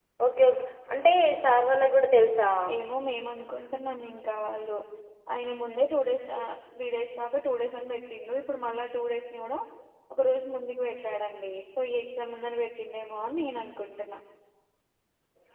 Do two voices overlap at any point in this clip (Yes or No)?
No